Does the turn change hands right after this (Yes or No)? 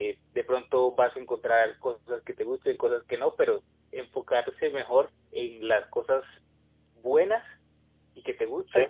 No